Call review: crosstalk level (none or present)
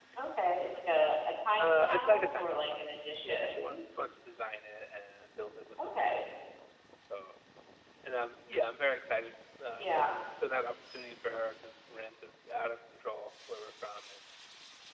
present